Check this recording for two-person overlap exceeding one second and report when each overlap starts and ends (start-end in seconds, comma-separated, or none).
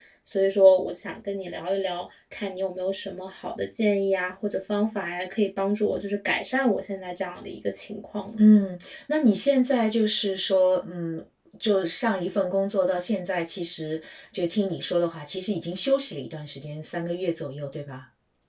none